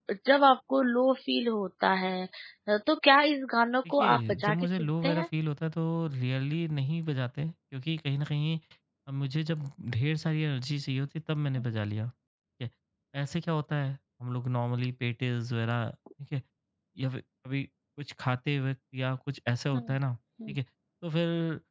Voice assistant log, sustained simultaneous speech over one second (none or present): present